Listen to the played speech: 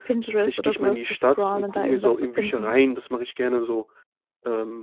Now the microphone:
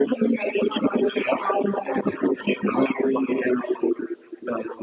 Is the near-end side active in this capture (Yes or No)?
No